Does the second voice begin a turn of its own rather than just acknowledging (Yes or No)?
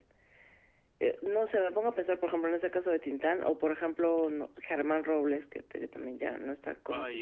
Yes